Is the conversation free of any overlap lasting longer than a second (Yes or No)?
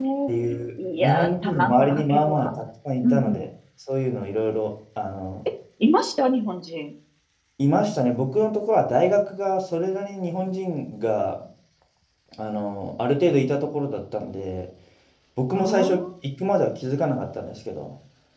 No